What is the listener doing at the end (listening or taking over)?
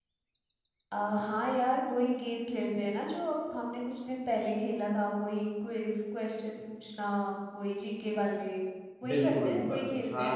taking over